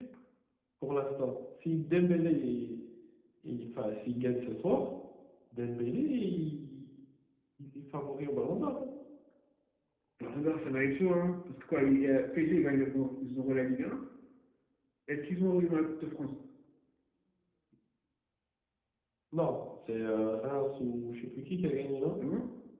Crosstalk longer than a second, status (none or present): none